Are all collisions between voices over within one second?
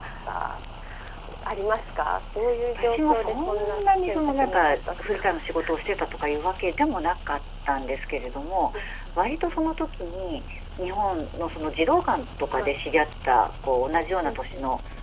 No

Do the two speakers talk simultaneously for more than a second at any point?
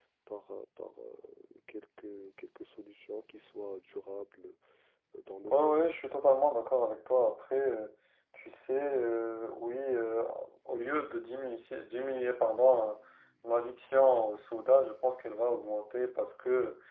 No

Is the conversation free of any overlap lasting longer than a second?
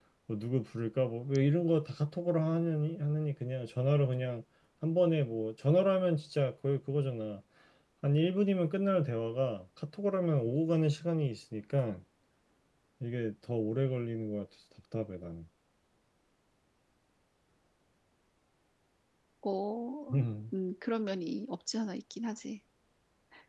Yes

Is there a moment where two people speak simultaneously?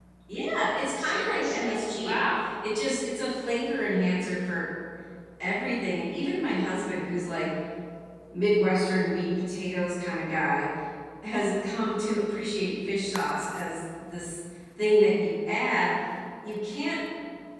Yes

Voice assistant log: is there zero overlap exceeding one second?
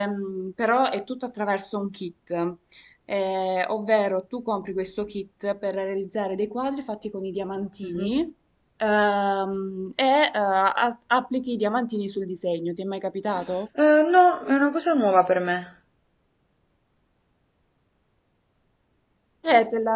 Yes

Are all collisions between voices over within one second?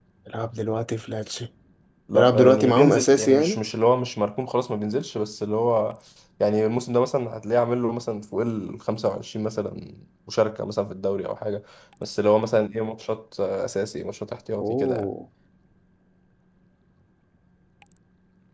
No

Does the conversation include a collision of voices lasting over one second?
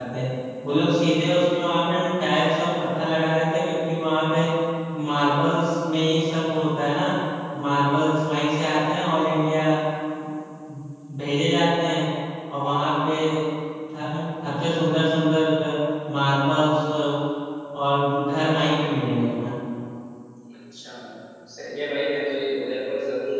No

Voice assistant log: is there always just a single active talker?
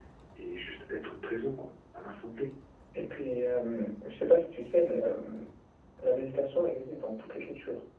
Yes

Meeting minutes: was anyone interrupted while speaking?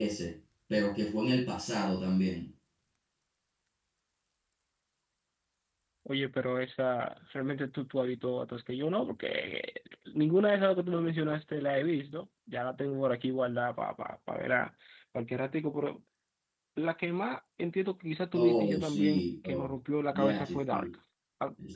Yes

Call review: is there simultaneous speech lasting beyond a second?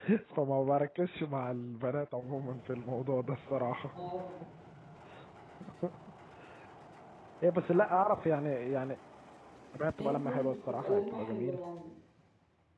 Yes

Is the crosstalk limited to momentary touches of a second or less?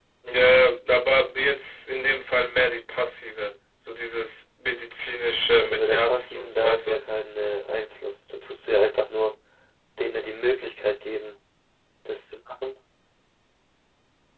No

